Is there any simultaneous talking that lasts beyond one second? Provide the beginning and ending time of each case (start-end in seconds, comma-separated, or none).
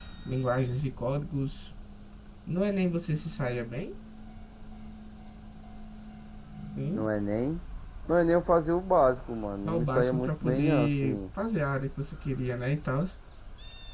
9.7-11.2